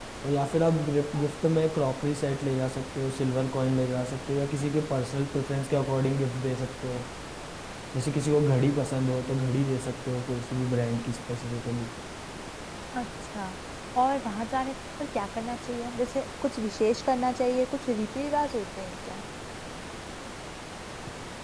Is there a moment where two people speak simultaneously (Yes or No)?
No